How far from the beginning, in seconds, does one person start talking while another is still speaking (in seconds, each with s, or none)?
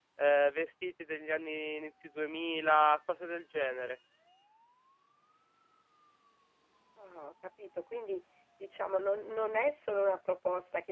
none